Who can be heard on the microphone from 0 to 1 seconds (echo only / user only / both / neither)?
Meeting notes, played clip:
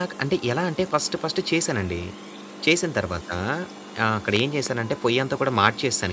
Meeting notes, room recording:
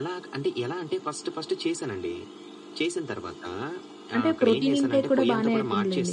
echo only